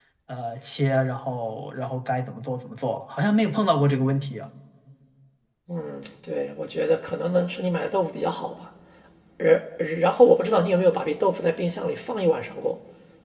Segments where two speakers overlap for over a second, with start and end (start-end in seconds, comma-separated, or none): none